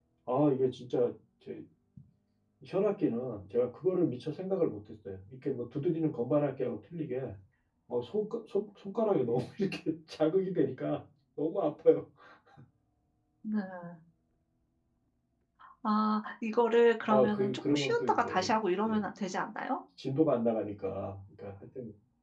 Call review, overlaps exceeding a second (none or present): present